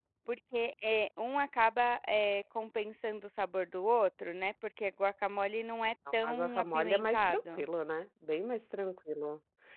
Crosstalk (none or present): present